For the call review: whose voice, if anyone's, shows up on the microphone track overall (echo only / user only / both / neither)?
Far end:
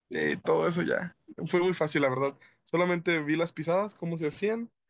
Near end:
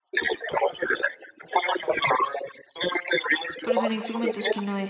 both